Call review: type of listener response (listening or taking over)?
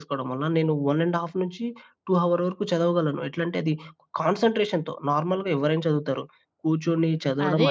taking over